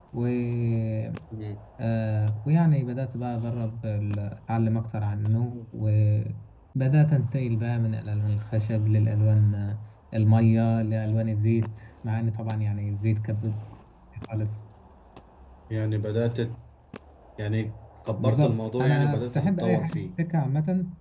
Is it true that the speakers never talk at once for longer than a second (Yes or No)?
No